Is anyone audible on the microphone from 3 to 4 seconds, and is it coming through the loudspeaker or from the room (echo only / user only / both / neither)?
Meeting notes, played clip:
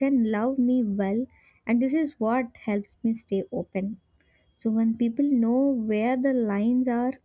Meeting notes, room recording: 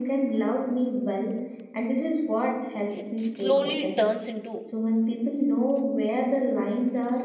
both